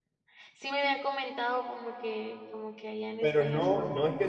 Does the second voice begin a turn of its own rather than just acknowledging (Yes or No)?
Yes